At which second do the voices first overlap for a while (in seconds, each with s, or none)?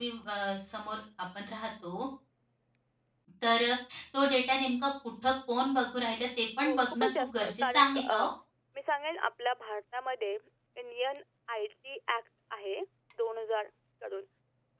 6.6 s